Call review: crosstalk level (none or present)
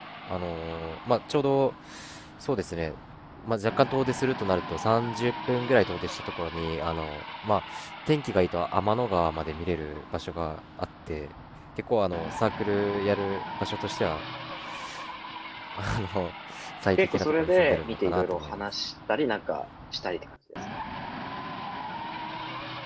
present